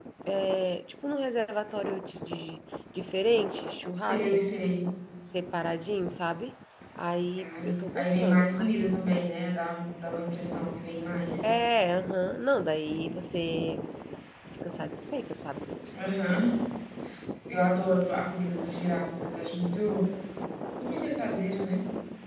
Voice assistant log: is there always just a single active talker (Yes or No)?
No